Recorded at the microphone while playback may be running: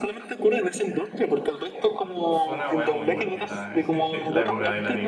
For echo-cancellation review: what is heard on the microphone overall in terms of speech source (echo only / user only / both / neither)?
both